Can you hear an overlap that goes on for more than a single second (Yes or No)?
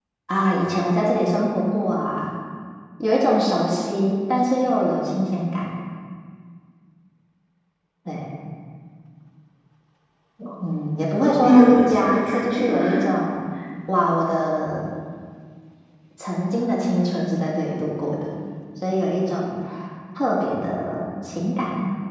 Yes